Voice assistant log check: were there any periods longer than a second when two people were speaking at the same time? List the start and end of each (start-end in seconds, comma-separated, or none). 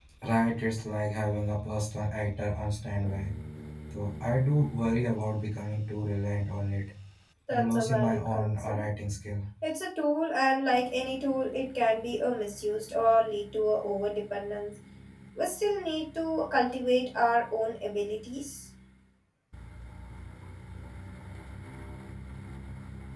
7.5-8.8